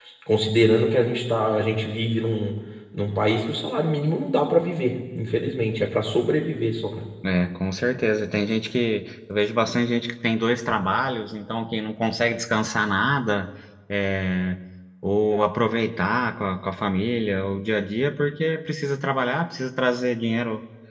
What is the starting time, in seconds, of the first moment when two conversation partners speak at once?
none

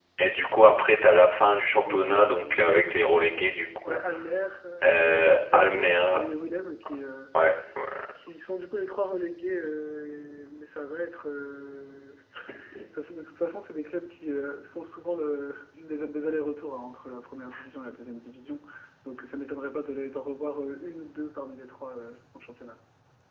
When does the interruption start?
1.8 s

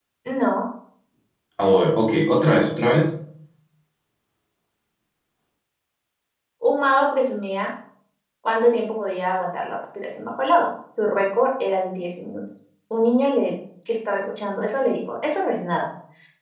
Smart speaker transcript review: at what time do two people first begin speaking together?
none

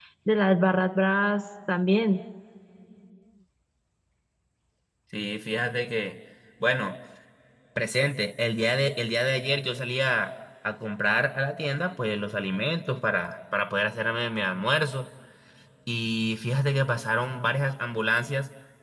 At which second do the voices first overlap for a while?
none

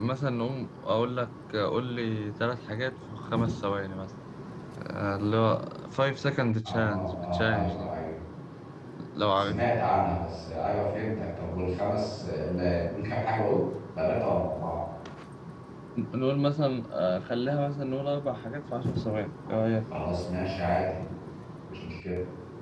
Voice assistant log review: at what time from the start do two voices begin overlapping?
6.6 s

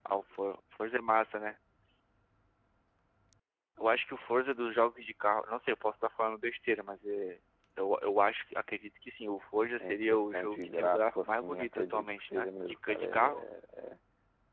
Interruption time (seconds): 9.8 s

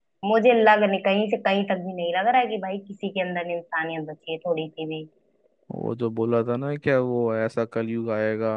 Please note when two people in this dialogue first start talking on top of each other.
none

